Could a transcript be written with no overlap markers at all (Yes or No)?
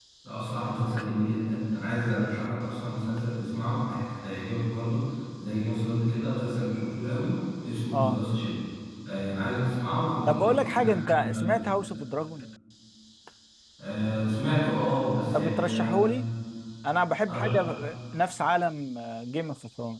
No